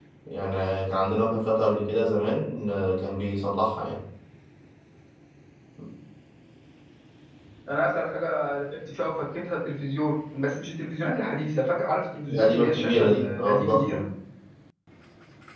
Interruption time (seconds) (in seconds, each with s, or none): 12.3 s